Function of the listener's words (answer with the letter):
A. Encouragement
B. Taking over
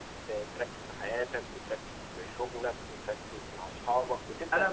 B